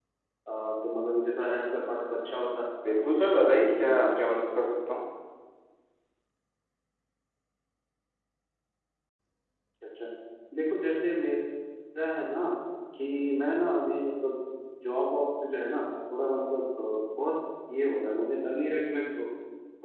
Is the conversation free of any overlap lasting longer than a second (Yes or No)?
No